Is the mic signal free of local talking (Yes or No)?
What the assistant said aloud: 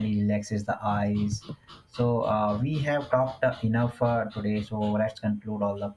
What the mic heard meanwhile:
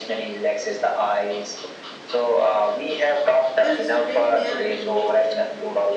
No